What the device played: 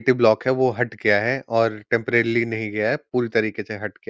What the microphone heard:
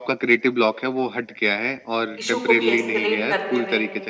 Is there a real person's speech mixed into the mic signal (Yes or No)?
Yes